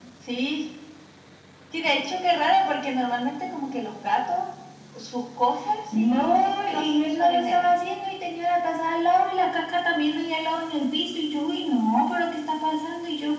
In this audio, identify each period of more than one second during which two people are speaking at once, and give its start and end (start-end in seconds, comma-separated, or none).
6.0-7.6